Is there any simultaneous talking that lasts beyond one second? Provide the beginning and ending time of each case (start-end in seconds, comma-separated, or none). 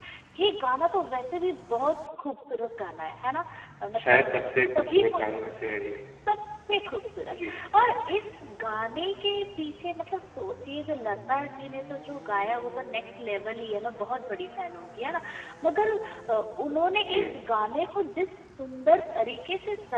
4.0-5.2